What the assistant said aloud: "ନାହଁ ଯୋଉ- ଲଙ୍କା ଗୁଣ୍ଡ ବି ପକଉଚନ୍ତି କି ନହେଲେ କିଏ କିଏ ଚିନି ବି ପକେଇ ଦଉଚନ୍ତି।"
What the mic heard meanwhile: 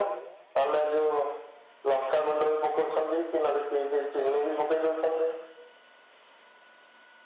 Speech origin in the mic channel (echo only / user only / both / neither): echo only